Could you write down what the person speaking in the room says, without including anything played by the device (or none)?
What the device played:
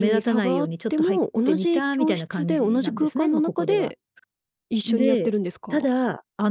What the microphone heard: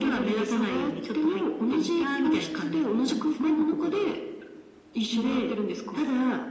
none